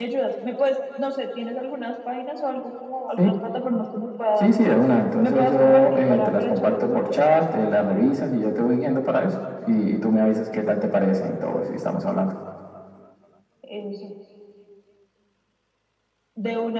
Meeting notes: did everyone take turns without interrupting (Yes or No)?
No